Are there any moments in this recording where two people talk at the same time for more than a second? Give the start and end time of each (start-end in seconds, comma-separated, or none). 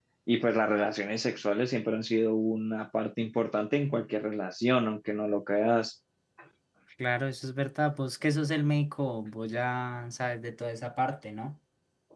none